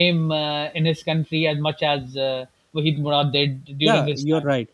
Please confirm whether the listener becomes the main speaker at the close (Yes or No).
Yes